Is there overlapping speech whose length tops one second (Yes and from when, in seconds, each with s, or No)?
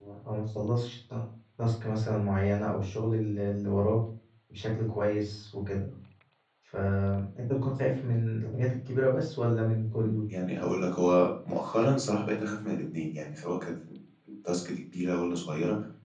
No